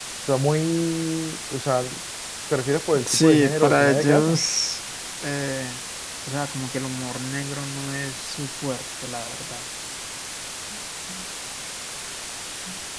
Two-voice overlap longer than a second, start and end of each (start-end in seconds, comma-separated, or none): 3.1-4.4